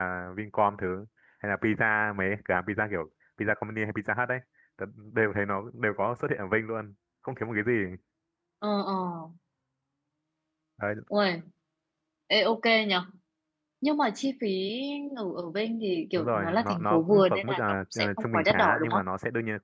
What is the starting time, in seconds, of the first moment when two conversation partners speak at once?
16.2 s

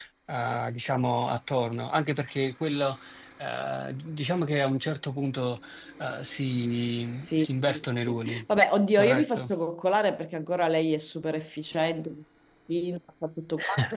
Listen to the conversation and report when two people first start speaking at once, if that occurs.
7.2 s

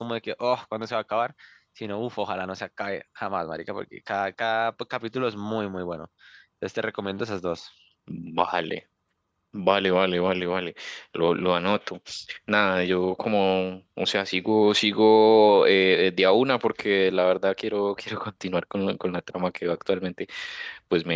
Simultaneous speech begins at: none

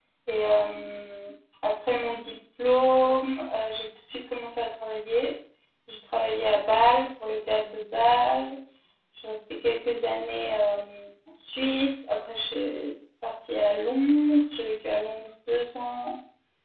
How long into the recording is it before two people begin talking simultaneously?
none

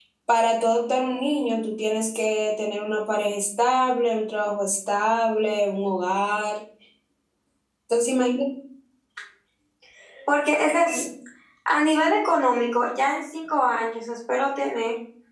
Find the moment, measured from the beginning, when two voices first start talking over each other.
none

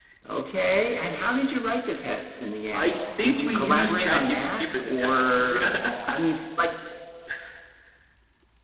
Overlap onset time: 2.7 s

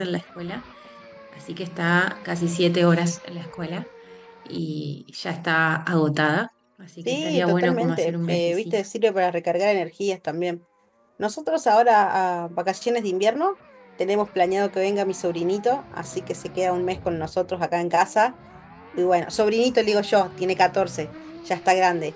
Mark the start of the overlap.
7.1 s

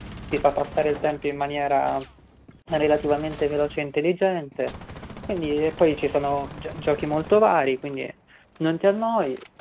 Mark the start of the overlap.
none

